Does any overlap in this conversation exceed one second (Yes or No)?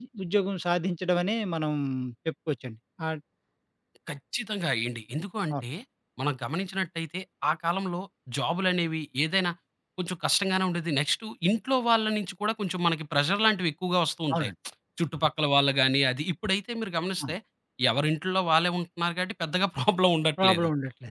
No